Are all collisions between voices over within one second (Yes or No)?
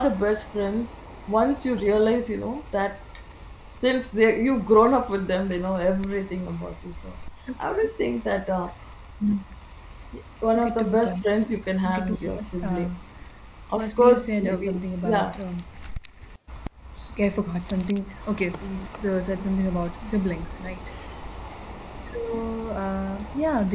No